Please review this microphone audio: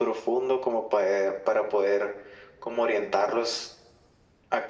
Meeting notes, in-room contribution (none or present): none